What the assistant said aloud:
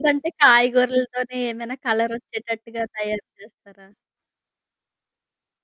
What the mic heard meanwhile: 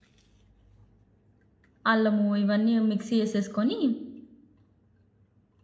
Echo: none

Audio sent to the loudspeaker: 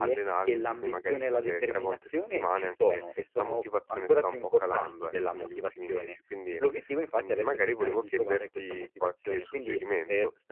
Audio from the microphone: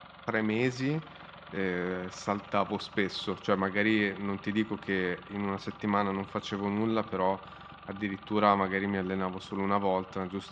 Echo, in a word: none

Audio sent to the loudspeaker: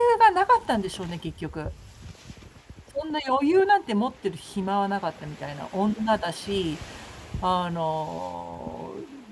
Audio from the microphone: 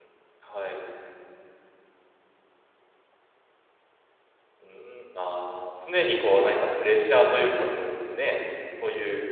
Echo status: none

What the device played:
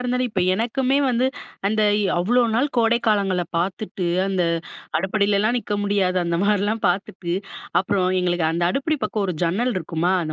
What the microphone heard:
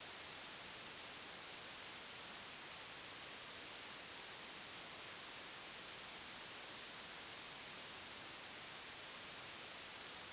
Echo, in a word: none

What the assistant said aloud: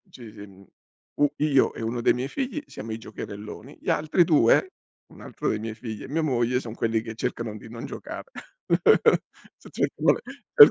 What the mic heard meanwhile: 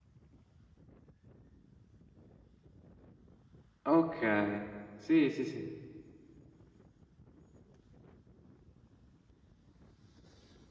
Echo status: none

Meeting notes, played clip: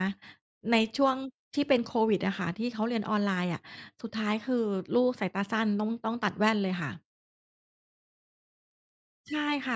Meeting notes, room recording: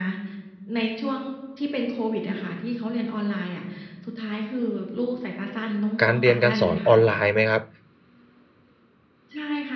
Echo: present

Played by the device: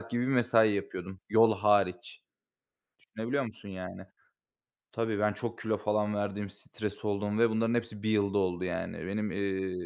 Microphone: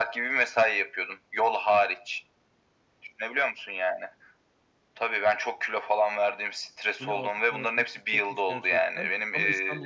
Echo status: present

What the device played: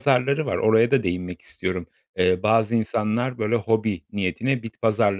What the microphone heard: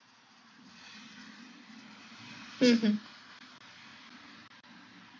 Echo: none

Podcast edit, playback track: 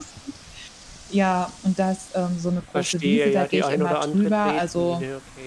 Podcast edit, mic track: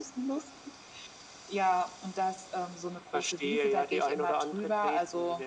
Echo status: present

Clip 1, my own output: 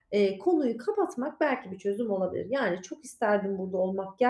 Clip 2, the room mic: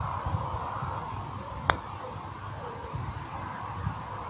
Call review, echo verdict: none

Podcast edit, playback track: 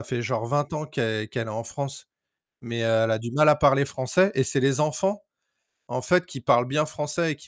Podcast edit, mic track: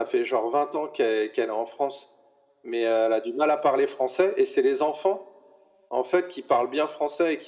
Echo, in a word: present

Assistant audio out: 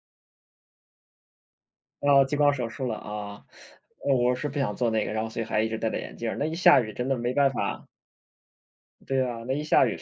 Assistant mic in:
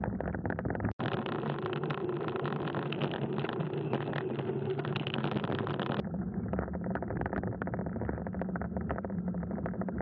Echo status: none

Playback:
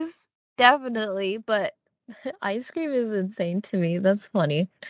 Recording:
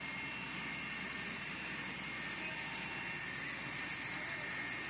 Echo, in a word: none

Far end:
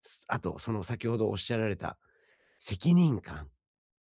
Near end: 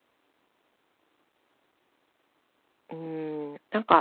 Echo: none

